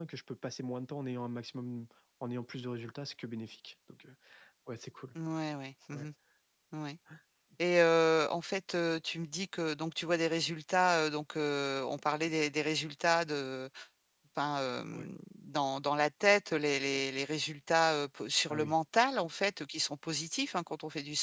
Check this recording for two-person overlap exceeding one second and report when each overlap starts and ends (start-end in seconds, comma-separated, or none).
none